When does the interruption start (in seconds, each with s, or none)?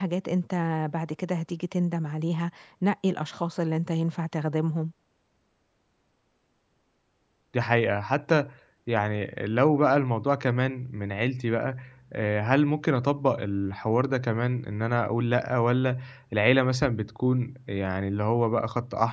none